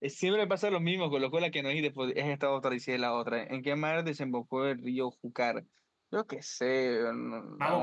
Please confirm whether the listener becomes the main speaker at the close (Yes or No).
Yes